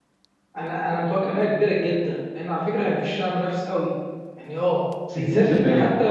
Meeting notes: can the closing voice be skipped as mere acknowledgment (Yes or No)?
Yes